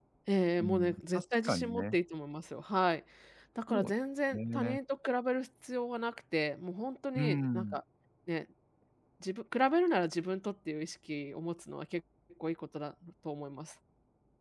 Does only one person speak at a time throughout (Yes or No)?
No